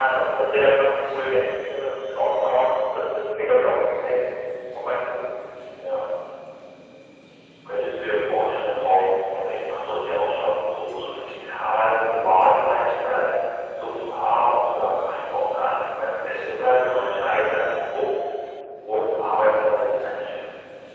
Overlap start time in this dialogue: none

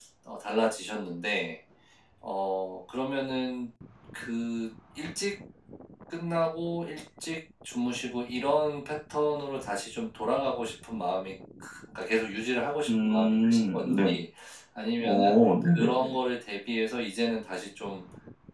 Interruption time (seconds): 12.9 s

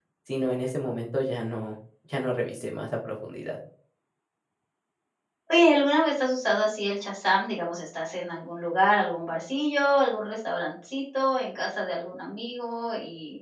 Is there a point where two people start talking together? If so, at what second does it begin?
none

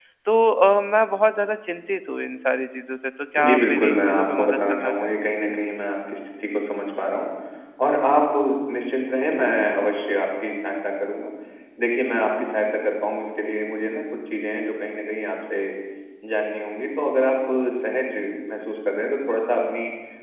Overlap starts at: 3.4 s

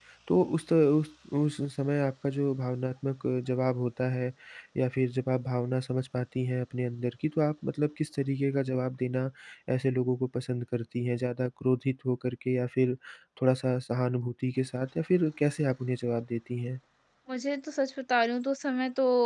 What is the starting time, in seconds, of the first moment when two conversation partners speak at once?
none

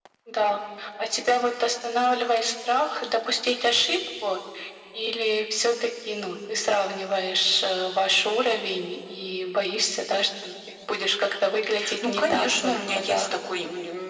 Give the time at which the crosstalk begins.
11.8 s

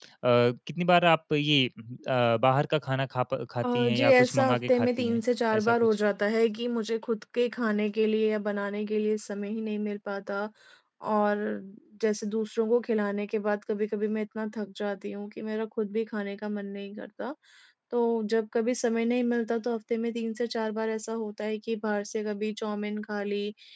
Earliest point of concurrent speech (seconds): 3.6 s

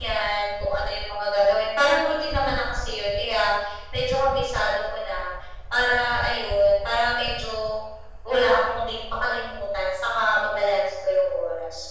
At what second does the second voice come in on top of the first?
none

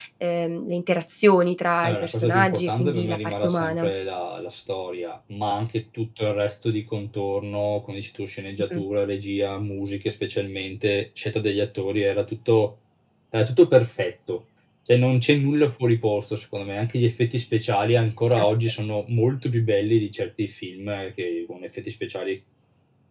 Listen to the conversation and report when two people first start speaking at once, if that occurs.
1.8 s

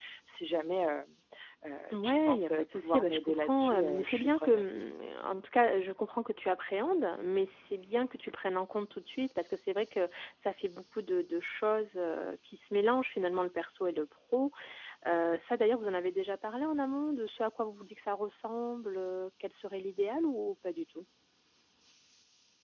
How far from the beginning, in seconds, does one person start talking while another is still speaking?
1.9 s

